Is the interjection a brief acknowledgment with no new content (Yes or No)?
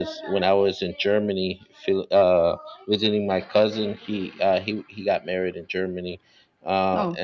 Yes